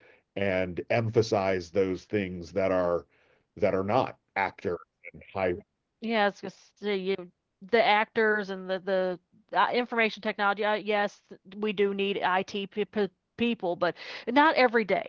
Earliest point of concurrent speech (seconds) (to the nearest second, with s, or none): none